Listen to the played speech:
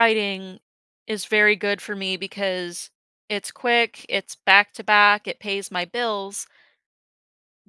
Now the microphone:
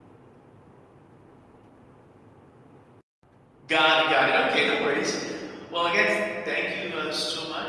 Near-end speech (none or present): present